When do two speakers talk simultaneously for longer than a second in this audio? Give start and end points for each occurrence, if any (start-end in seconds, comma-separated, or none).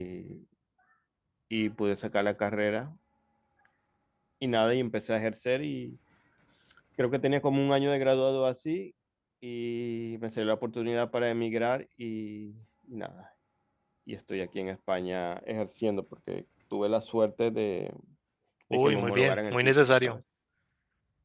18.7-20.2